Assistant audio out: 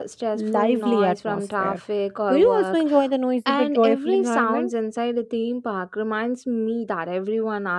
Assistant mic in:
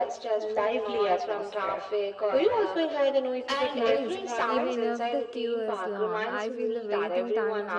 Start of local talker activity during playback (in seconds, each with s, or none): 3.7 s